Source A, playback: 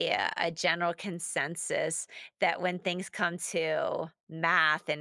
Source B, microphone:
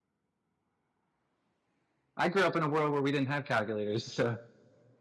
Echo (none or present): none